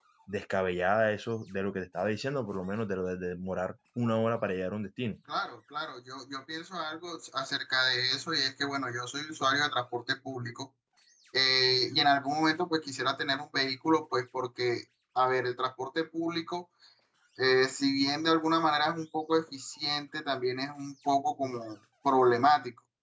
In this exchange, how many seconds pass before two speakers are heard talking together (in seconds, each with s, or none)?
none